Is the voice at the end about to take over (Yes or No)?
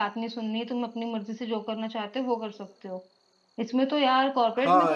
No